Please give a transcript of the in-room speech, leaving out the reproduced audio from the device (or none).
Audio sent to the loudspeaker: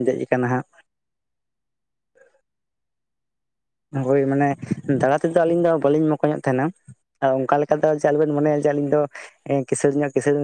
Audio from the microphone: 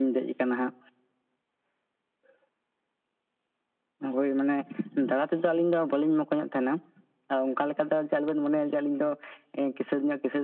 none